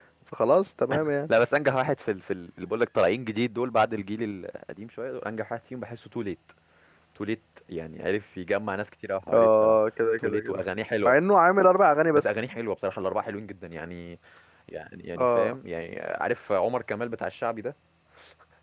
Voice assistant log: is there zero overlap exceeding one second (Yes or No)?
Yes